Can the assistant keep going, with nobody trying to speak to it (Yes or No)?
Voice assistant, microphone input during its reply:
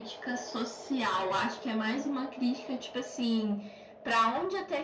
Yes